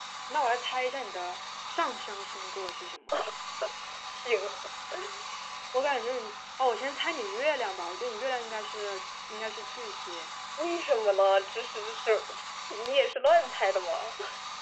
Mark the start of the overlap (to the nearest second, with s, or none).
none